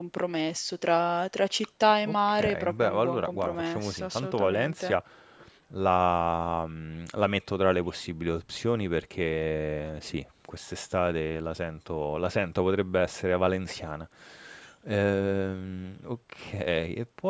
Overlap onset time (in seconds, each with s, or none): 2.0 s